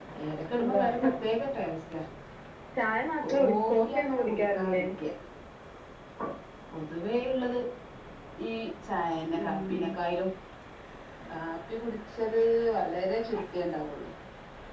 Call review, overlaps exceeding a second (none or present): present